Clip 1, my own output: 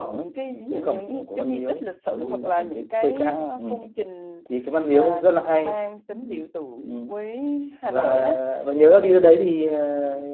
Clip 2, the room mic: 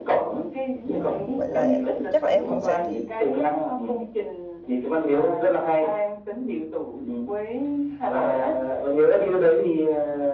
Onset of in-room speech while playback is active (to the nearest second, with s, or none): 1 s